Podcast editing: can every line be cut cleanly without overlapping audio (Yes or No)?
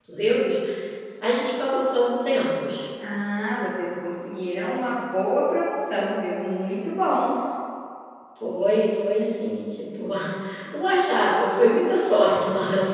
Yes